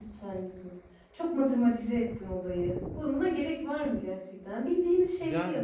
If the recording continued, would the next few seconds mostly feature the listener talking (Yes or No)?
No